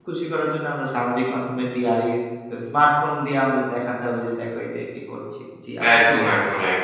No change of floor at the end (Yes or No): No